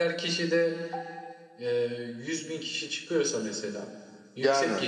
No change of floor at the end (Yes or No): Yes